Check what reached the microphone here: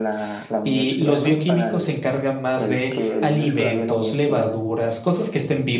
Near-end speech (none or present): present